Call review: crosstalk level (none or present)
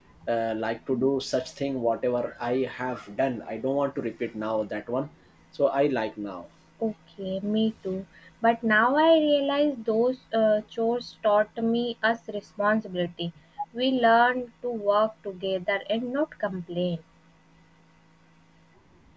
none